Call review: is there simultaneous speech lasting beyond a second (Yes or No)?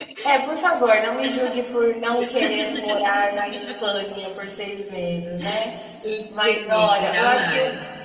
Yes